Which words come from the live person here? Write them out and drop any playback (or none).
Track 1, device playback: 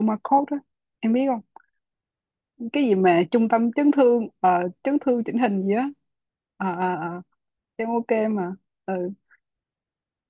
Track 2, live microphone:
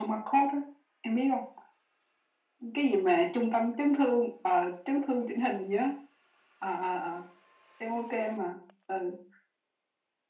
none